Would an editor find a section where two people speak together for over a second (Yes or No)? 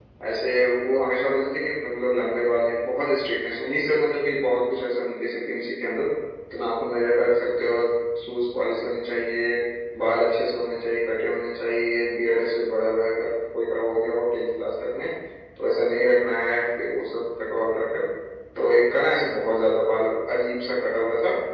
No